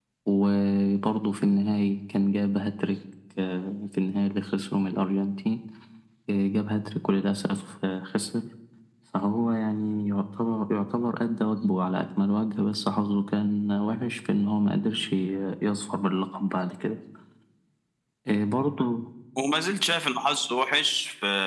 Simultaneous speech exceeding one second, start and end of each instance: none

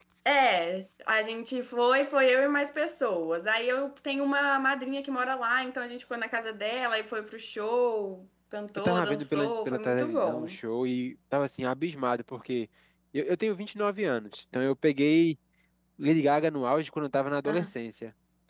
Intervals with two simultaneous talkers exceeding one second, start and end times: 8.8-10.6

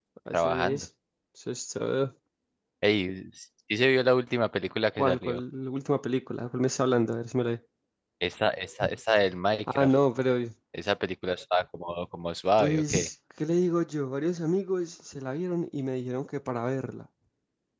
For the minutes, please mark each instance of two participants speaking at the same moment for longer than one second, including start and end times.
none

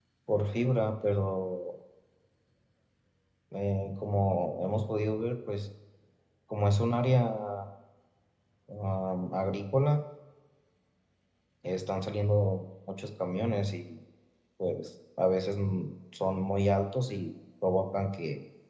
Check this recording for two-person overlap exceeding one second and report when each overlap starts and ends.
none

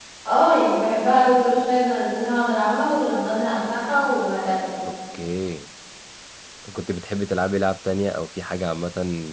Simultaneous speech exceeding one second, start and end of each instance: none

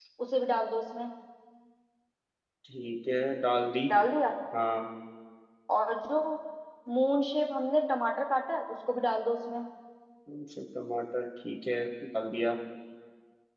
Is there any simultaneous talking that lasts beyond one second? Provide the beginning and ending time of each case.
none

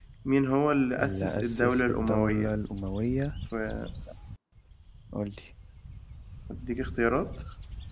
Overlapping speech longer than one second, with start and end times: 1.0-2.5

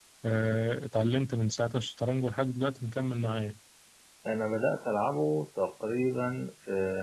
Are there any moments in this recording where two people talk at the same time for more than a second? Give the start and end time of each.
none

